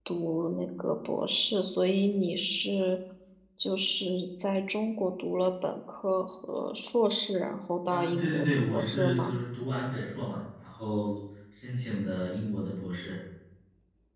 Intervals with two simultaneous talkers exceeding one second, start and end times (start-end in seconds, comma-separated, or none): 7.9-9.4